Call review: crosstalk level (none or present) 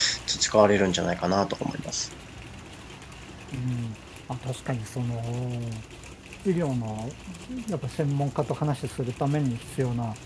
none